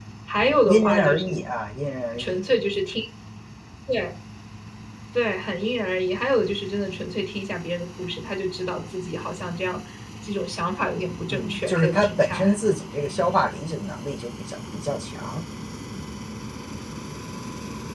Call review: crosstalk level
present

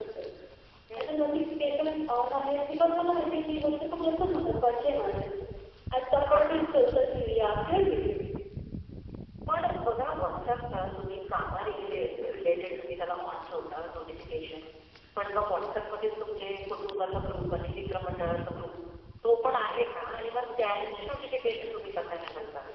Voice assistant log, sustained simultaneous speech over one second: none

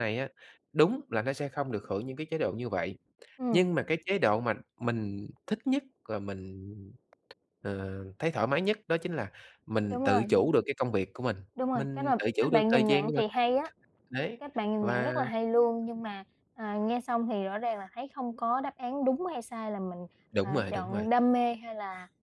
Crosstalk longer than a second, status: present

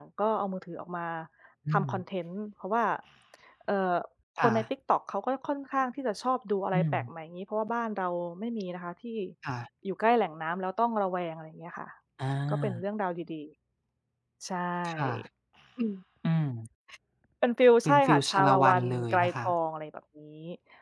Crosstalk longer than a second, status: present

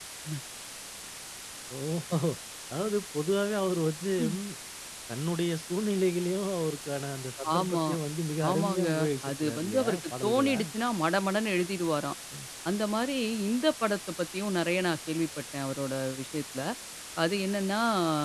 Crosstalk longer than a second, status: present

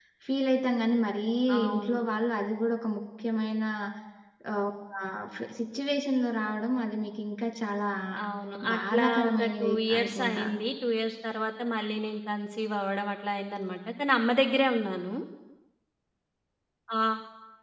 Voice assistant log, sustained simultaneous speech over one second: present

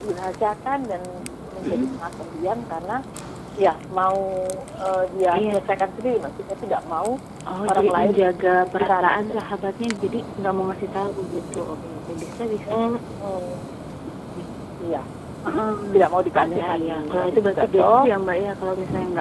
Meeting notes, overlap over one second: present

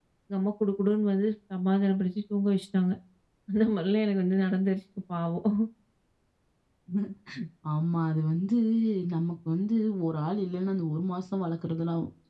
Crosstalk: none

